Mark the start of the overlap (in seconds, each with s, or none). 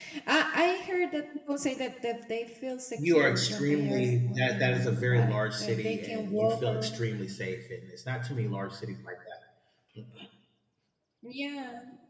3.0 s